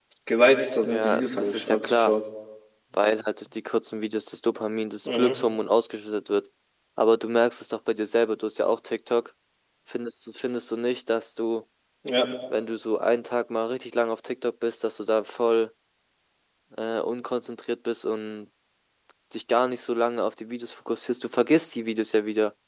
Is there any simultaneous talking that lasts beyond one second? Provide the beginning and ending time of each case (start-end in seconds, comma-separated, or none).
0.8-2.2